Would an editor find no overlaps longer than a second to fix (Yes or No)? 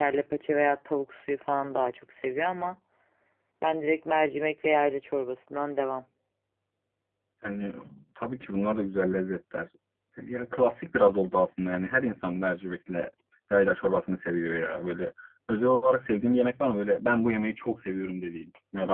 Yes